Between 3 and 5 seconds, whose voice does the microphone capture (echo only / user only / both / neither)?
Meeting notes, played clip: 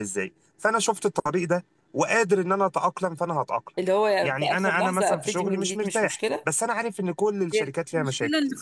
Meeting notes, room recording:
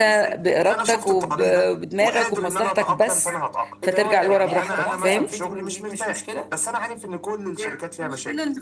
both